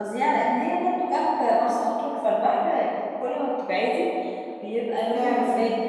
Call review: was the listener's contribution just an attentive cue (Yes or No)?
Yes